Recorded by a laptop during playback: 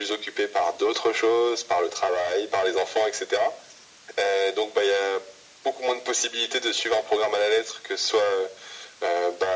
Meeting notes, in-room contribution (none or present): none